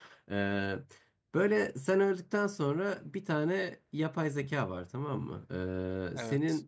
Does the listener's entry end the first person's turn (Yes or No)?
No